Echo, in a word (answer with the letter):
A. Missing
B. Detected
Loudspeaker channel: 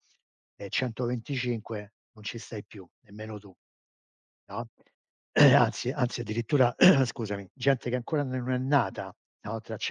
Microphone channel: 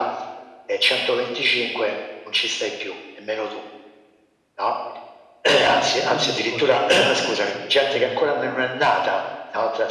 B